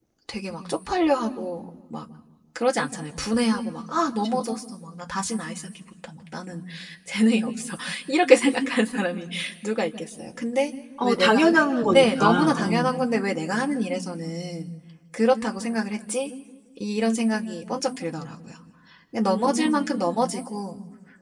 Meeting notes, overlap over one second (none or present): present